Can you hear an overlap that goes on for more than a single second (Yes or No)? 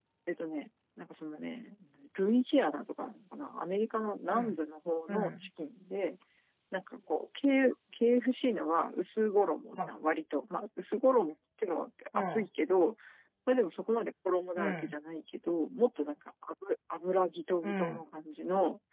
No